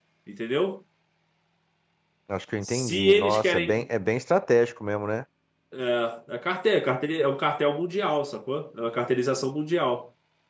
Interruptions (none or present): present